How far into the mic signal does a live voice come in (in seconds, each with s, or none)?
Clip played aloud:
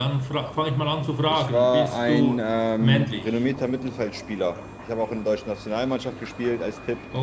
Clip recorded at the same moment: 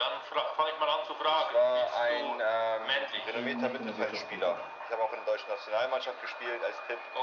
3.1 s